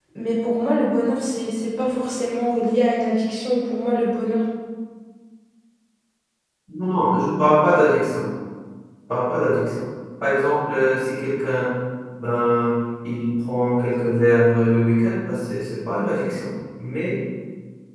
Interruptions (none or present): none